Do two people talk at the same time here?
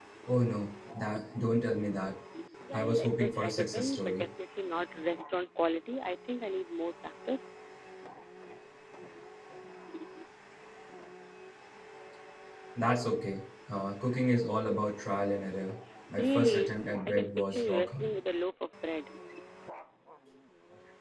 Yes, from 2.7 s

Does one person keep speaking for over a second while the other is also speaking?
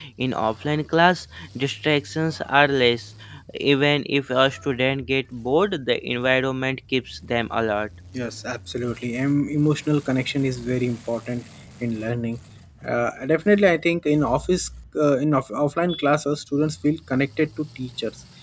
No

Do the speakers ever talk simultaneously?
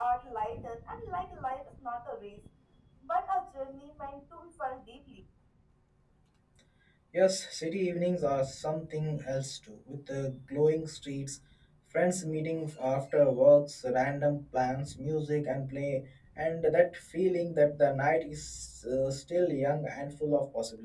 No

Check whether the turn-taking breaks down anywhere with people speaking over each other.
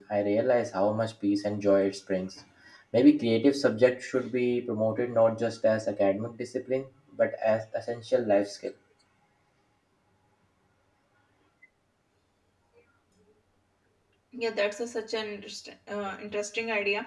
No

